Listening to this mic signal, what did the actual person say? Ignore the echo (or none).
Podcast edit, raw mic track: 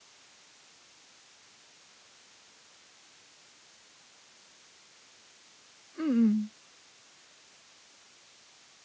うんうん。